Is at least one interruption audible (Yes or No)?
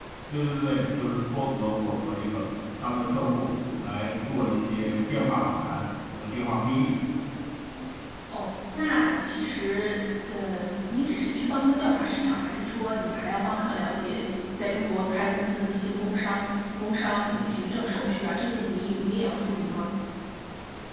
No